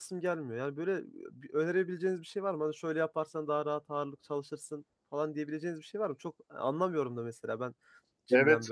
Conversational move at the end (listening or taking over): taking over